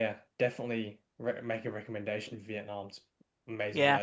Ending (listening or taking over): taking over